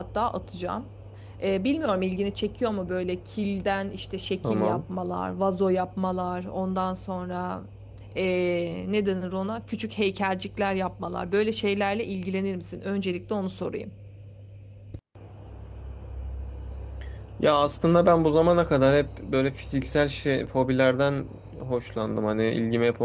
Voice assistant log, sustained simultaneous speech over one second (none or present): none